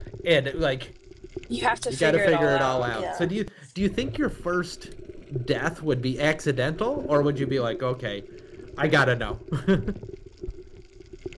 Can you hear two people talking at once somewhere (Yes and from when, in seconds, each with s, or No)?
Yes, from 1.9 s